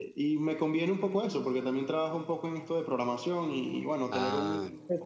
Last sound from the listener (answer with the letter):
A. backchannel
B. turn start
A